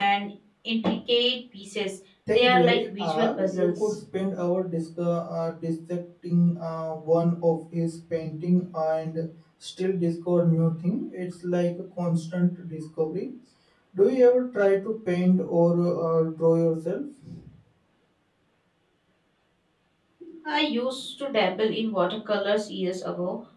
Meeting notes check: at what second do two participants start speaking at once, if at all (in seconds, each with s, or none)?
2.3 s